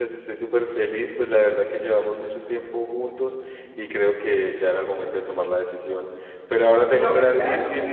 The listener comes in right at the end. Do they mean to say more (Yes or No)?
No